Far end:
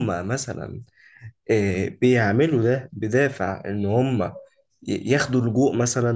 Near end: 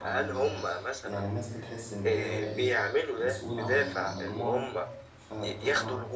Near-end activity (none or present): present